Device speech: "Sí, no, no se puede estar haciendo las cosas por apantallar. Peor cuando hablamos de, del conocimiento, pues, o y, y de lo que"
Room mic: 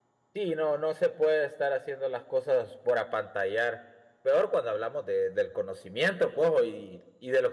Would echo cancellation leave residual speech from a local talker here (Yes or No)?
No